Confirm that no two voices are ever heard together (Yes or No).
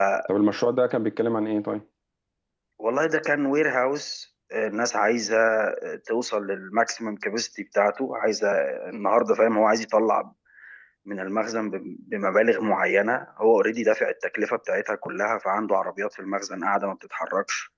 Yes